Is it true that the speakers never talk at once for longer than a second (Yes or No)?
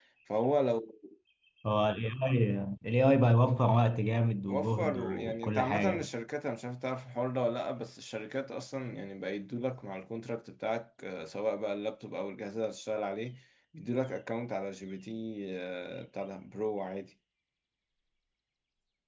No